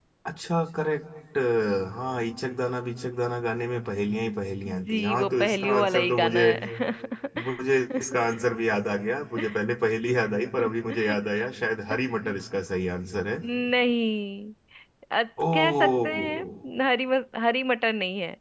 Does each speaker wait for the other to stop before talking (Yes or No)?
No